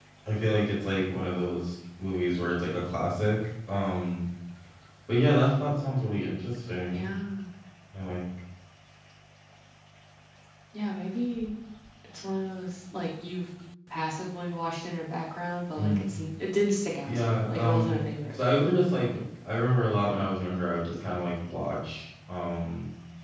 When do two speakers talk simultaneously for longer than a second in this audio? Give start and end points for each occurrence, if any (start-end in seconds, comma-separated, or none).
17.1-18.3